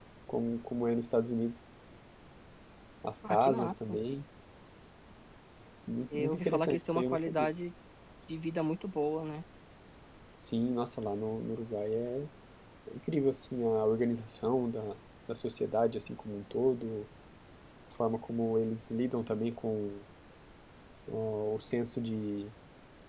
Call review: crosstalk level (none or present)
present